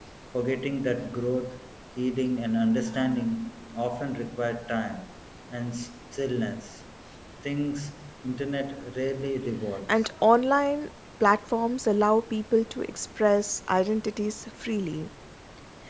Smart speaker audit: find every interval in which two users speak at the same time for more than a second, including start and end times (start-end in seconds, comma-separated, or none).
none